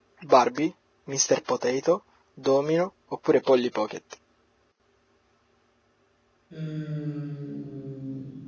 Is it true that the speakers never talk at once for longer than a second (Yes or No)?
Yes